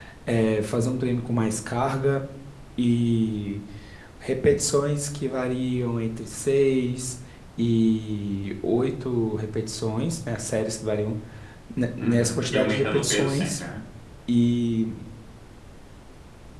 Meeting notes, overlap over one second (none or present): present